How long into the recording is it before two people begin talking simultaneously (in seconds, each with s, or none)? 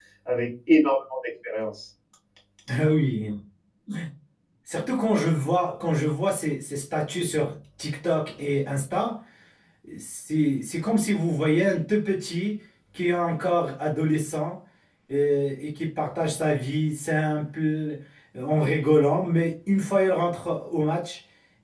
none